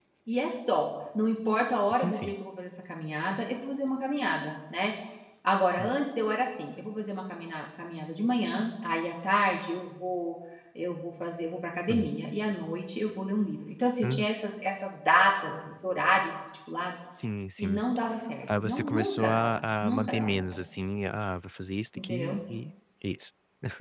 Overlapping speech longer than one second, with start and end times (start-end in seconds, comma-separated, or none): 18.5-20.6